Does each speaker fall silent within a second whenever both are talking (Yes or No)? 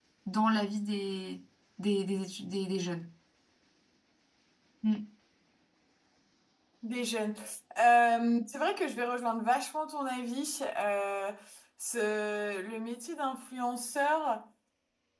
Yes